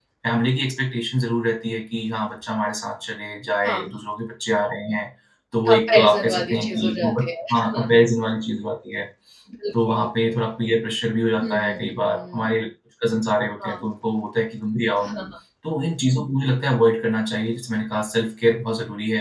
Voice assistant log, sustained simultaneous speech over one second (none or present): present